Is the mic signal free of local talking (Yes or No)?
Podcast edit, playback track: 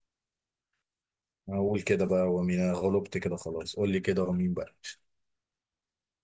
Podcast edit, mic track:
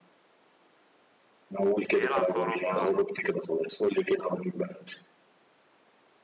No